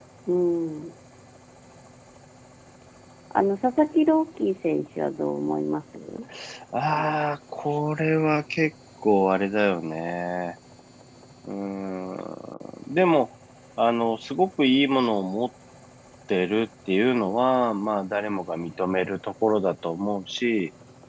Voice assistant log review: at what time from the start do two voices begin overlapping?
none

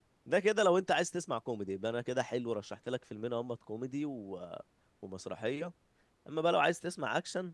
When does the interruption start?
none

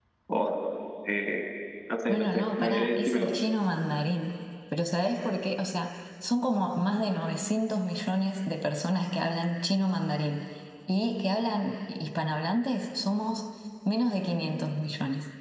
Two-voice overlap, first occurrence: 2.1 s

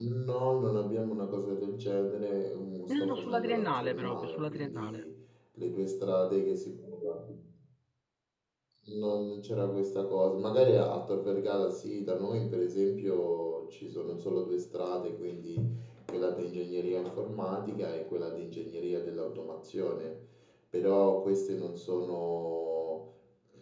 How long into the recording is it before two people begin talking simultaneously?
2.9 s

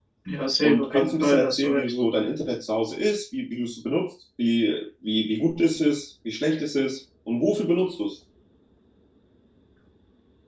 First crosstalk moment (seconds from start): 0.6 s

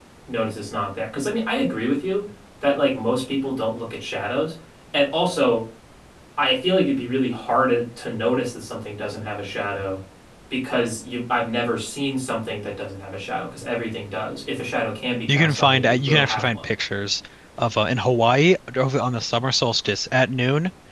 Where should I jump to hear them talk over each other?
15.3 s

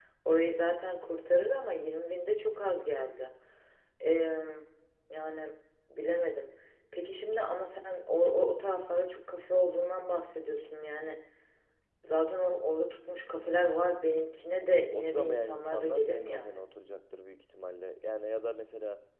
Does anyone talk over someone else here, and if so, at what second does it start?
14.8 s

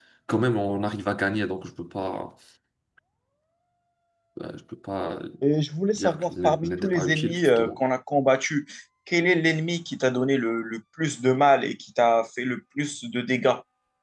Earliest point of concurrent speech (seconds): 6.0 s

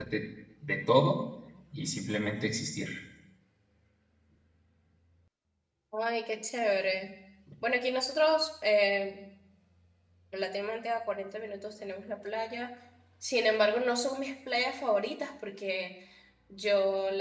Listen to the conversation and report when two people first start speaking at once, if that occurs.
none

